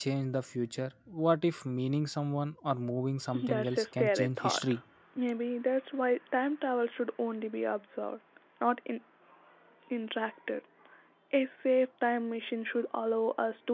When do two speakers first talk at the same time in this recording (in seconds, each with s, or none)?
3.3 s